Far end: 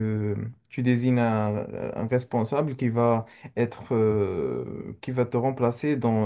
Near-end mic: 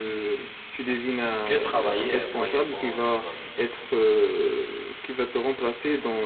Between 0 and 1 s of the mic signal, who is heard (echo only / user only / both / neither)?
echo only